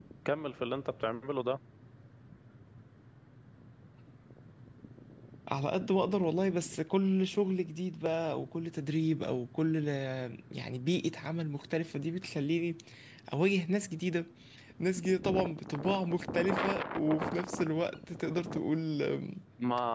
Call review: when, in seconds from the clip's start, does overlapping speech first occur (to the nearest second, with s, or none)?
none